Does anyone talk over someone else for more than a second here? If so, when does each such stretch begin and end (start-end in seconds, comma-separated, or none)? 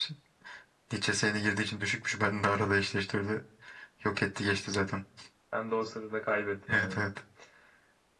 none